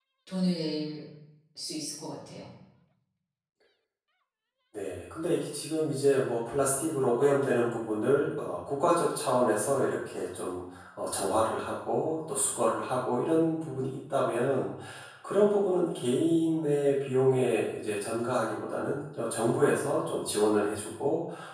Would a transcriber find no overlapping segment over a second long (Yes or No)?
Yes